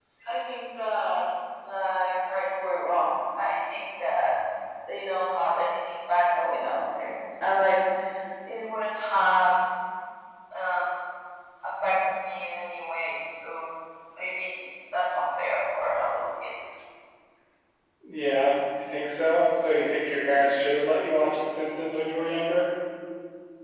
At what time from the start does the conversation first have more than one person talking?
none

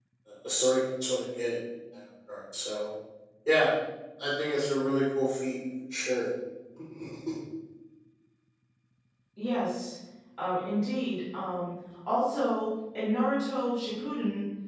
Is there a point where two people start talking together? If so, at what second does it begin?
none

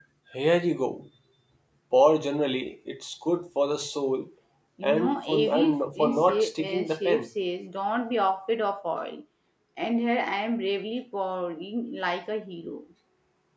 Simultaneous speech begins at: 4.8 s

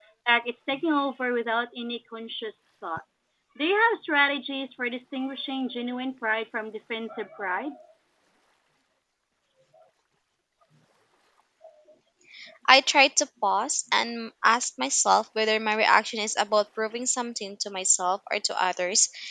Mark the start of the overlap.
none

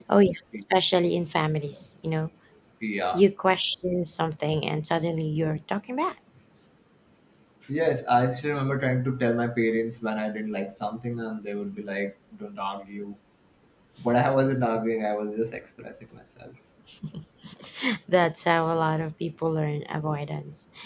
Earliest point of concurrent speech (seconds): none

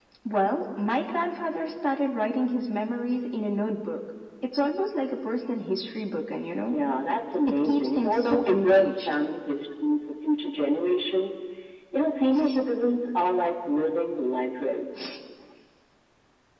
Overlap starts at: 7.5 s

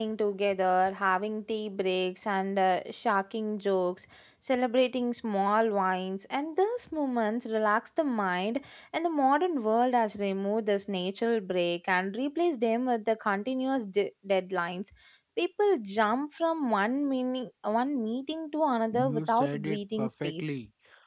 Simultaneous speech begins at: 18.9 s

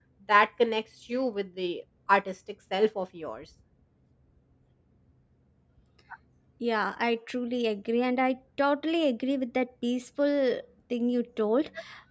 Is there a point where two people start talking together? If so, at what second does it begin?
none

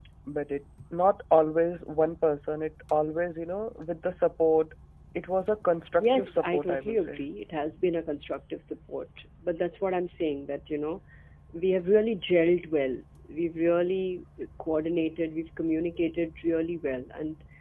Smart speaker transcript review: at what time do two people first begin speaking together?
6.0 s

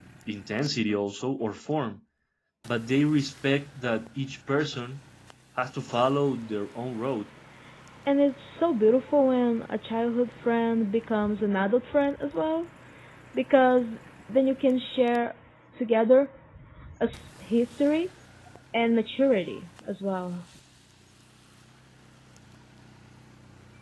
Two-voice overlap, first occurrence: none

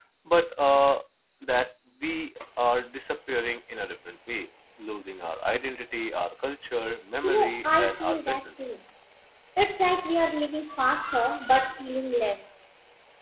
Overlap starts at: 7.2 s

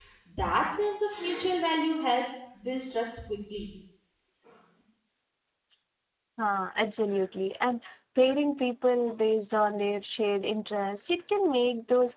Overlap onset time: none

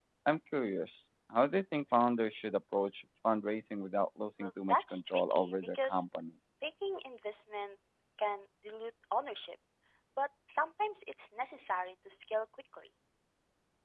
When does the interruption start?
4.4 s

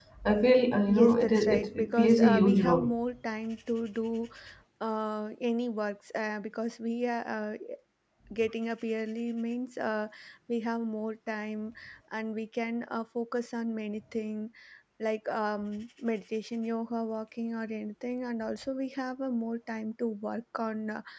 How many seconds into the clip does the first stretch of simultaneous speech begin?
0.9 s

